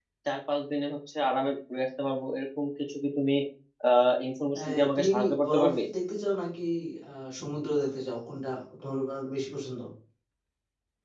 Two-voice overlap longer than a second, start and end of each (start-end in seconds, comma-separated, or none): 4.6-5.8